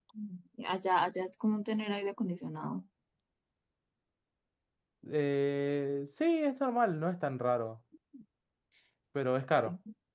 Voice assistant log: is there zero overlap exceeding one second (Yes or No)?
Yes